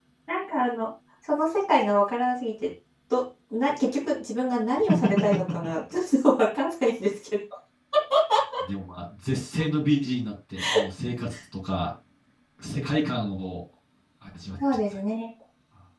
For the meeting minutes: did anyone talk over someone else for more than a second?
No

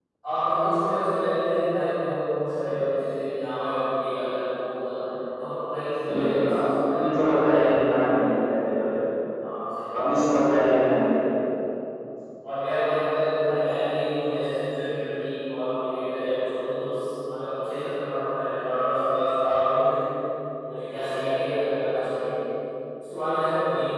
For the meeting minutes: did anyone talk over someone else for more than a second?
Yes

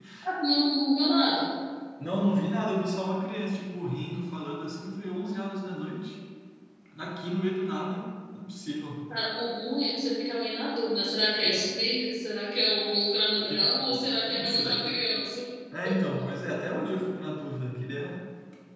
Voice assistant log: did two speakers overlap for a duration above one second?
Yes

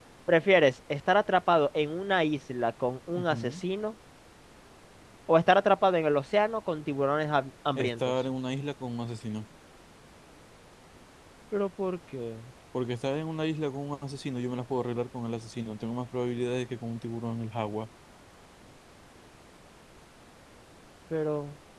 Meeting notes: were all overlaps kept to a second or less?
Yes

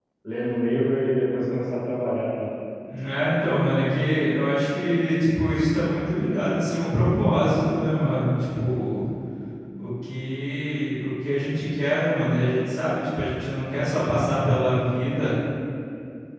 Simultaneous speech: No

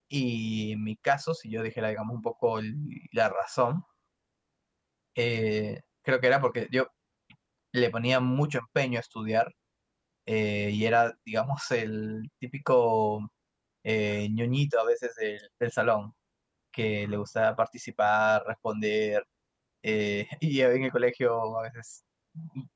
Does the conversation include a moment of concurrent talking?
No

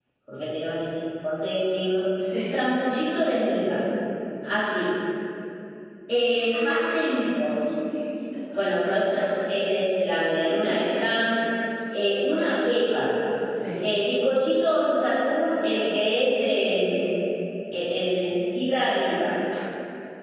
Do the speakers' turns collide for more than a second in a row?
No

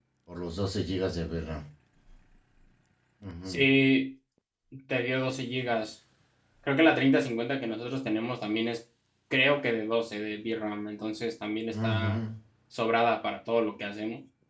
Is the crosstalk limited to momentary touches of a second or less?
Yes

